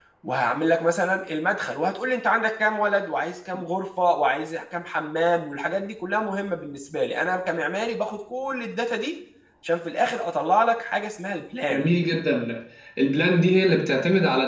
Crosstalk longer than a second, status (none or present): none